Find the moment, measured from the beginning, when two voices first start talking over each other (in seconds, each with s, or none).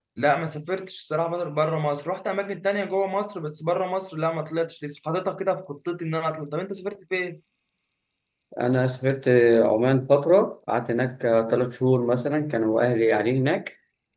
none